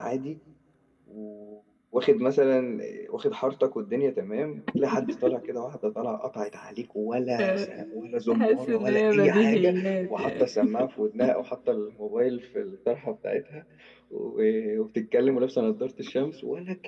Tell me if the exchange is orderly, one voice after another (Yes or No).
No